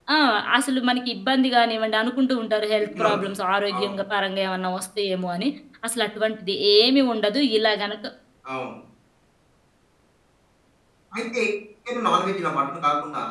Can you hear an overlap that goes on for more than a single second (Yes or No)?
No